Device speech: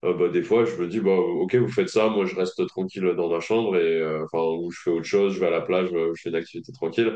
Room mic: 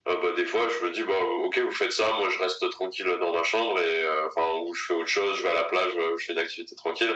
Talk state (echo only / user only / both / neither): echo only